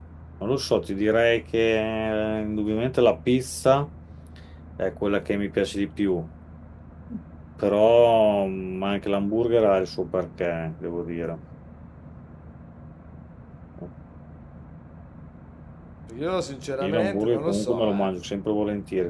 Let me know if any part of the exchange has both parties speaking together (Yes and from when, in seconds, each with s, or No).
Yes, from 16.8 s